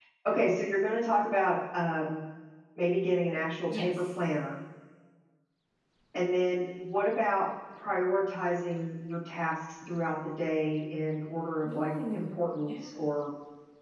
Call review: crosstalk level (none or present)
present